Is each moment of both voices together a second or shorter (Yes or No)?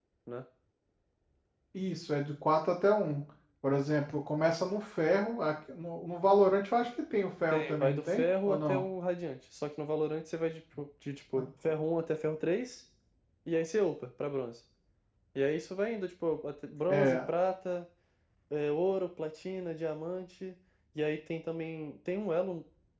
No